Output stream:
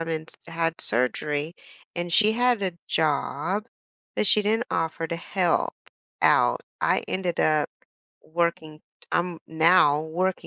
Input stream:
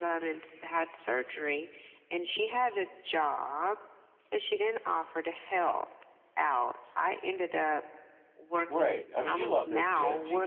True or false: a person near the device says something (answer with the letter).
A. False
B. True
B